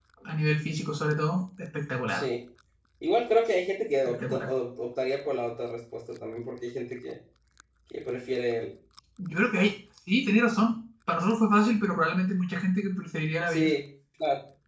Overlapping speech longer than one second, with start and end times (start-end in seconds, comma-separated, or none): none